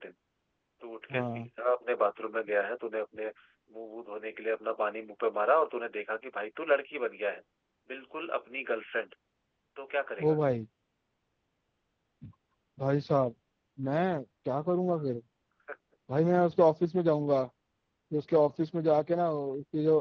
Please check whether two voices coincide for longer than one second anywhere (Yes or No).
No